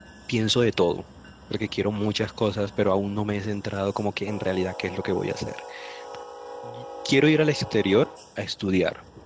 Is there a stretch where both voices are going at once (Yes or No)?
No